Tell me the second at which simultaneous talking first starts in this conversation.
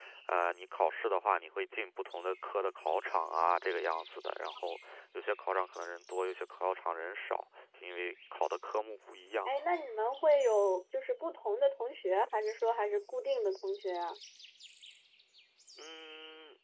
none

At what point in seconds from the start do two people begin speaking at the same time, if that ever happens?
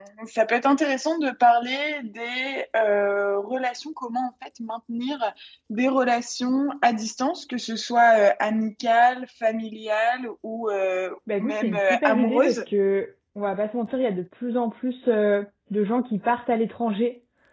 11 s

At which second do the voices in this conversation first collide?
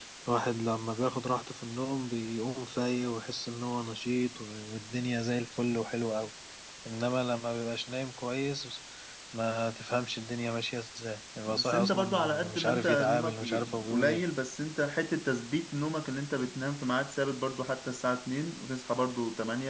11 s

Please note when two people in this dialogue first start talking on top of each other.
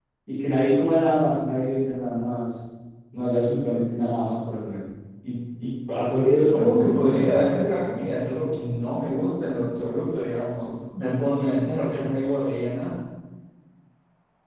6 s

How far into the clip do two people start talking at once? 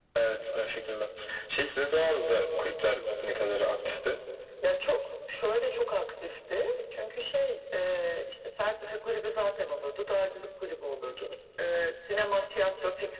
none

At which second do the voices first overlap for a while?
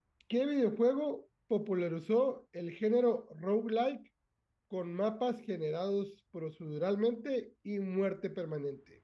none

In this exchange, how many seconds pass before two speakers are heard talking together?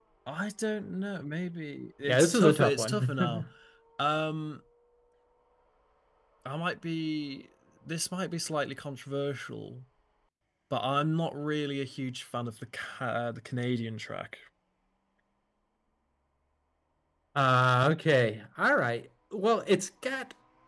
2 s

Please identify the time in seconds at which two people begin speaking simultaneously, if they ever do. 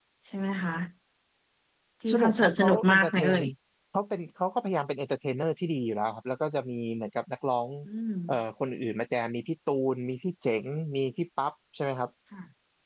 2 s

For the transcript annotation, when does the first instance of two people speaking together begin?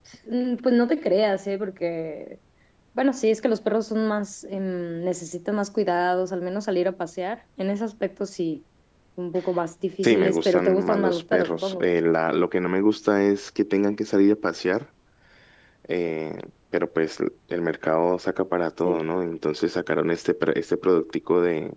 10 s

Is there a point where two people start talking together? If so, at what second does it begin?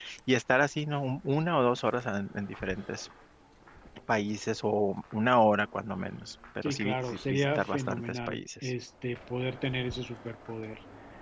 7 s

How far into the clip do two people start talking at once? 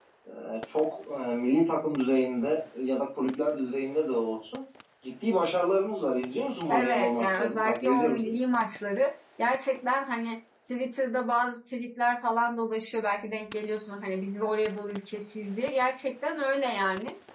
7 s

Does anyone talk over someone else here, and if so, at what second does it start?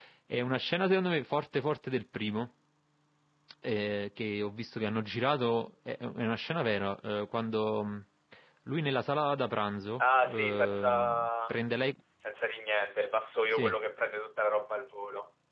10 s

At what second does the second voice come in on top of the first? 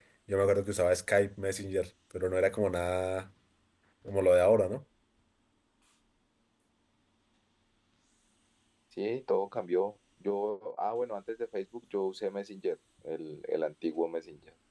none

